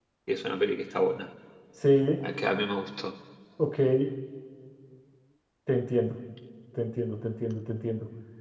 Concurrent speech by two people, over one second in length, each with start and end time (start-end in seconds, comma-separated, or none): none